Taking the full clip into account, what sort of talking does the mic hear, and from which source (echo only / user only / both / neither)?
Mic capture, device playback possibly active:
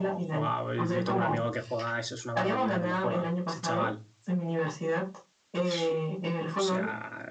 both